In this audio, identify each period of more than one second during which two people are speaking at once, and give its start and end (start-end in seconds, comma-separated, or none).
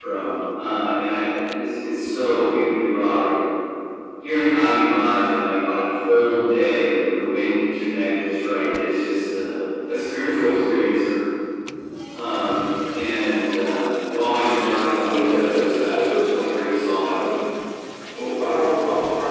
14.9-17.2